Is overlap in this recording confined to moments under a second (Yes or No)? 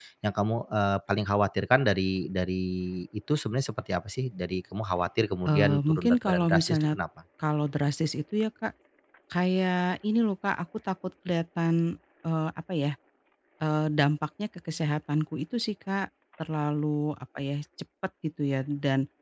No